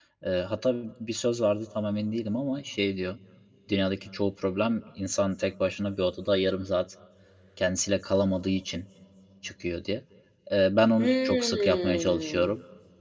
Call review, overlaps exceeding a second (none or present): present